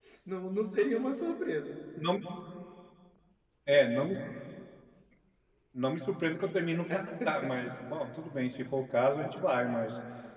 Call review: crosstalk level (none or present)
none